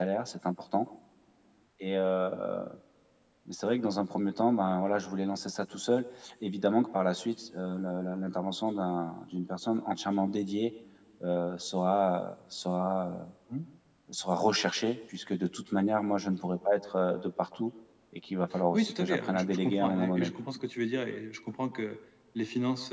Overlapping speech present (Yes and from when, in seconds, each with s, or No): Yes, from 18.7 s